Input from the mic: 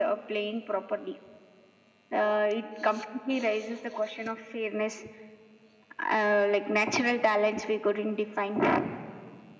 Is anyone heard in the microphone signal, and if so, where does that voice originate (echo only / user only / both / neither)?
echo only